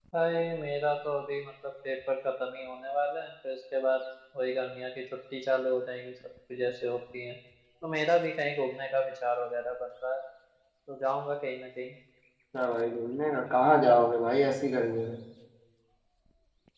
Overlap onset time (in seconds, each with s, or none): none